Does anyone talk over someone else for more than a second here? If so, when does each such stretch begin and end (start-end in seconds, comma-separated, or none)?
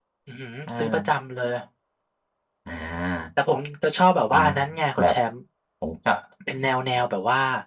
none